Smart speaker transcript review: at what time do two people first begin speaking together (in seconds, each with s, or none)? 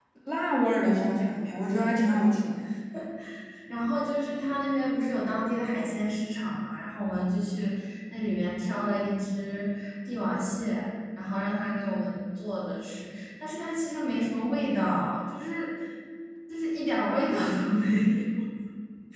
0.8 s